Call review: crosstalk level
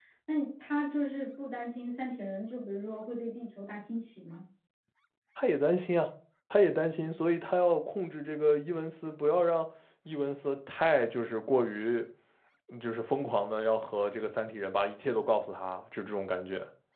none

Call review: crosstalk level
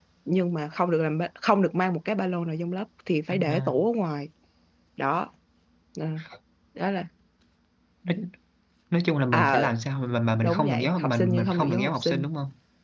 present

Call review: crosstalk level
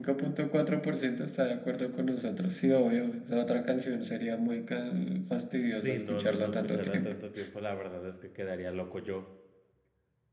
present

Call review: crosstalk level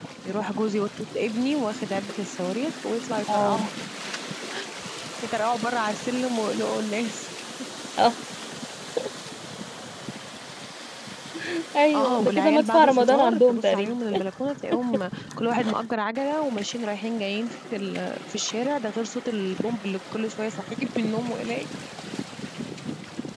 present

